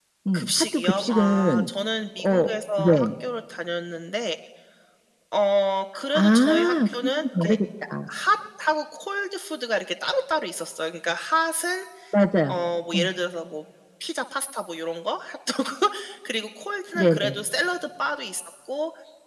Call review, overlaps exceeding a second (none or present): present